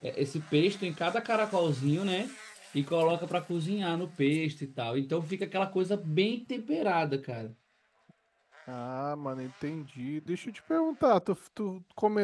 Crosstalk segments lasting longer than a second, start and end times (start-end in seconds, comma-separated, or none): none